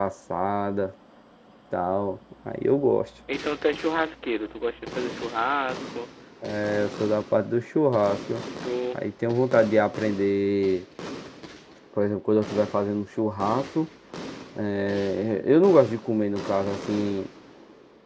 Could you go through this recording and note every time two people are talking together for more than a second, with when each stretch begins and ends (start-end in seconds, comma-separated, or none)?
none